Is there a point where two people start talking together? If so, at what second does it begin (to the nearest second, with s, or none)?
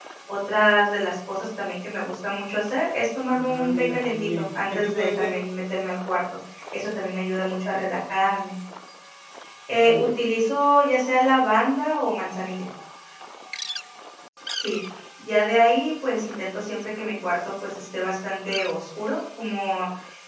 3 s